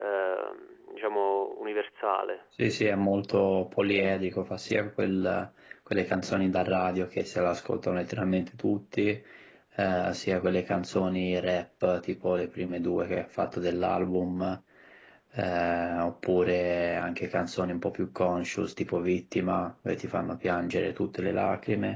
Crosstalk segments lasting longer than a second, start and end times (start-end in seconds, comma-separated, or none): none